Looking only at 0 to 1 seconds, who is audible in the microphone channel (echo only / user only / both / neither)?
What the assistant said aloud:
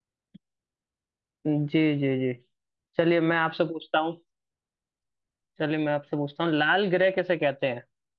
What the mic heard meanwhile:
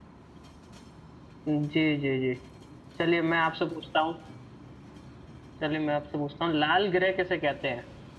neither